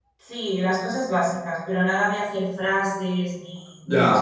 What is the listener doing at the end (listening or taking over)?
taking over